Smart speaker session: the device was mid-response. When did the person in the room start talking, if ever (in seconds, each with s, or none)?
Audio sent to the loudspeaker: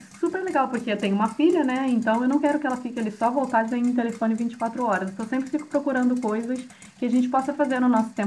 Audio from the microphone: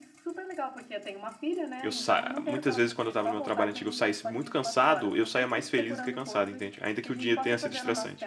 1.8 s